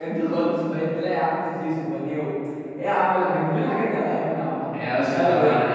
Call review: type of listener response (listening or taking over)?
taking over